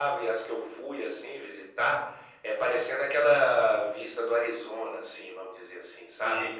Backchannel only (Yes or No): Yes